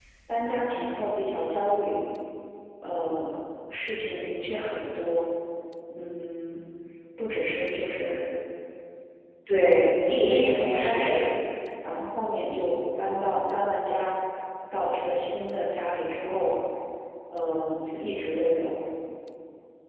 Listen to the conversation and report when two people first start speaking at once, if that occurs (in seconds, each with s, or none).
9.6 s